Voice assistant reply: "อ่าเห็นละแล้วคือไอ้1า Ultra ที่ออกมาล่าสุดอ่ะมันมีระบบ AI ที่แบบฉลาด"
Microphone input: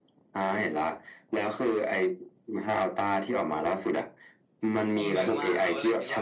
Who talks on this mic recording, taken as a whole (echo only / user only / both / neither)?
both